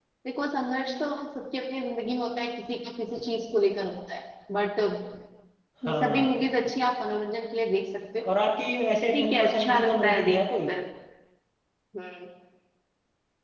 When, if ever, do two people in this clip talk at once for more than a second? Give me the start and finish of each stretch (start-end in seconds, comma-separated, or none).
9.1-10.7